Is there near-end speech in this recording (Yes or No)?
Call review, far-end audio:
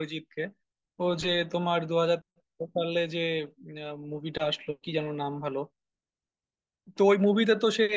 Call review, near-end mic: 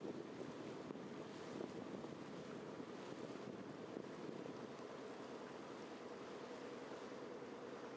No